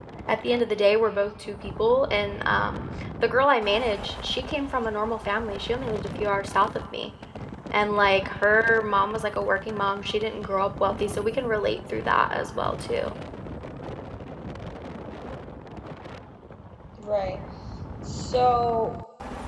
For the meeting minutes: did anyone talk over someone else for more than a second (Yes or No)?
No